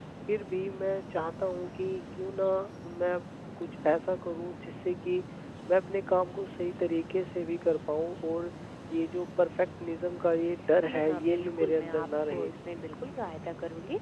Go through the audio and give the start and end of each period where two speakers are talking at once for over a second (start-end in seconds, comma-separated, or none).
10.8-12.5